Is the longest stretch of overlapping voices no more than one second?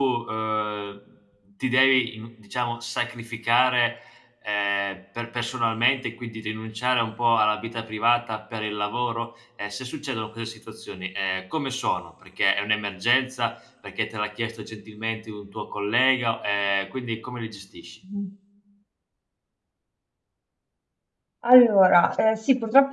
Yes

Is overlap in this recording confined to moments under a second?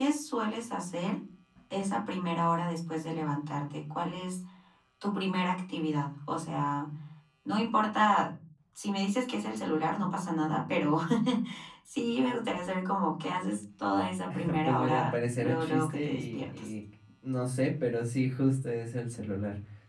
No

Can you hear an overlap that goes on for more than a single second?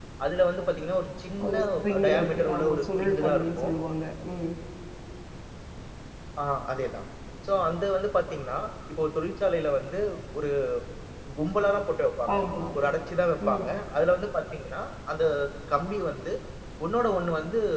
Yes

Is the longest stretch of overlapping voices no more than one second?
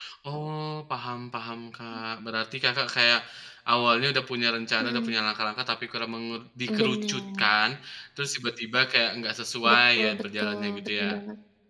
No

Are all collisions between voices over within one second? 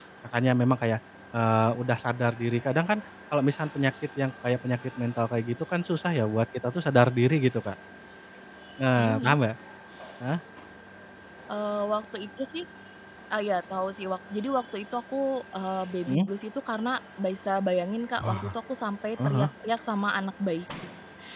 Yes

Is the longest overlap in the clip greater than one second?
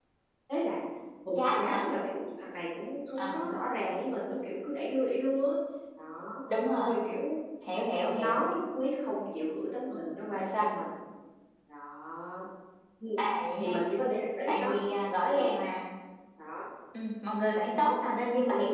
No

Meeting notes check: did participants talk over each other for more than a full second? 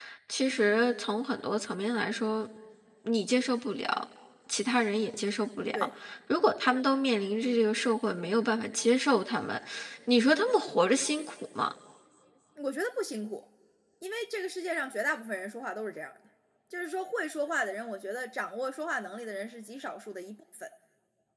No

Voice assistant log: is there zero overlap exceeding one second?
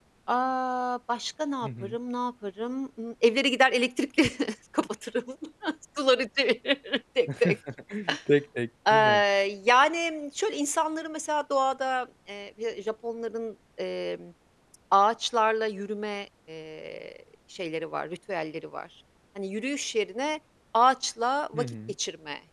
Yes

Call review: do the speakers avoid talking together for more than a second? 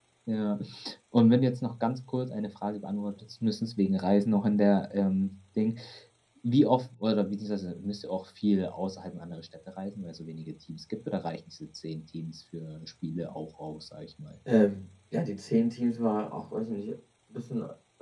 Yes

